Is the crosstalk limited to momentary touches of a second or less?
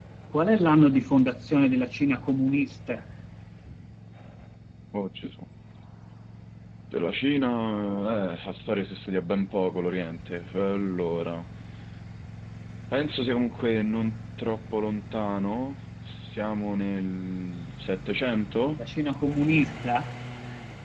Yes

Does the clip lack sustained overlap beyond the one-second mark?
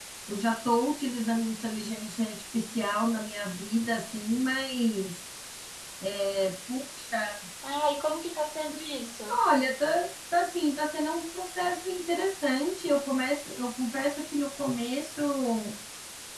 Yes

